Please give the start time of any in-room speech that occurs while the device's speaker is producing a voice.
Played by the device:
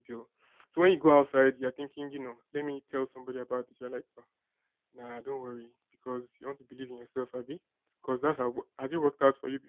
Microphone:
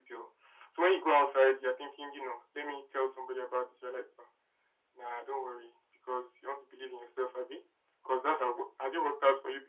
none

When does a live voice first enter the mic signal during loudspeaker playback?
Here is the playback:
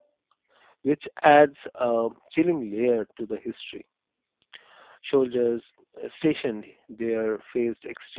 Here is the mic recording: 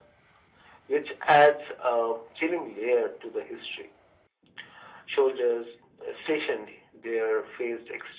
none

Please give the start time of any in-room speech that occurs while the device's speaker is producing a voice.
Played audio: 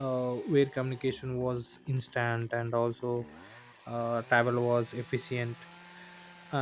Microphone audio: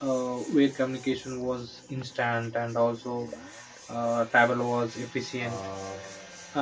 5.4 s

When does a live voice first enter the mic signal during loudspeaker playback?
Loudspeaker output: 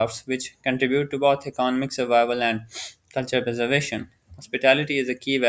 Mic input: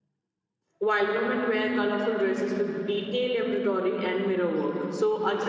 0.8 s

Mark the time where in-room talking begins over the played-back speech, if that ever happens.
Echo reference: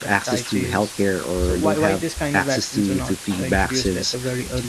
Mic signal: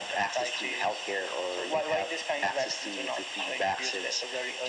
none

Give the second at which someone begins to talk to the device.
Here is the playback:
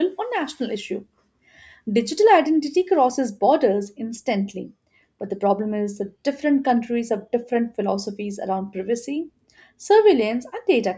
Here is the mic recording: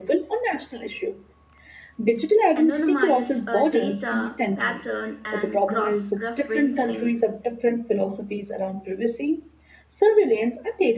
2.6 s

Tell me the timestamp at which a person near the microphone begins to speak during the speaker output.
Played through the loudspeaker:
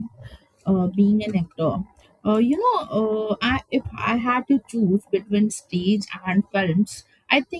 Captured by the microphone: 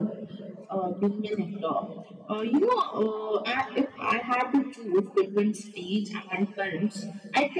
none

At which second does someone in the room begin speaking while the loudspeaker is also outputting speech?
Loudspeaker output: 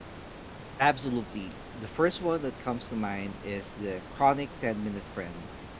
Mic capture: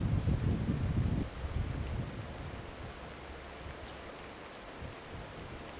none

